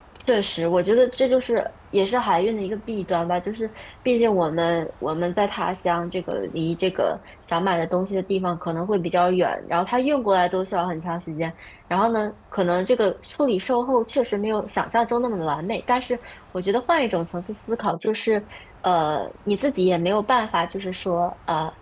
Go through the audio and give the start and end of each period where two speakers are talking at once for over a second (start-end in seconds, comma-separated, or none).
none